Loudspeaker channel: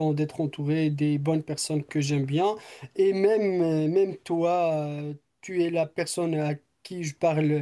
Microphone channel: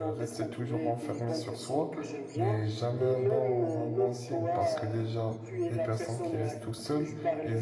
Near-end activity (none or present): present